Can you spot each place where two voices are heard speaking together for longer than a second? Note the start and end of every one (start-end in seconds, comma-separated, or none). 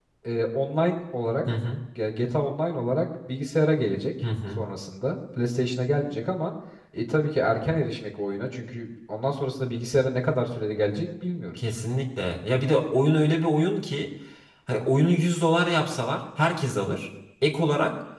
none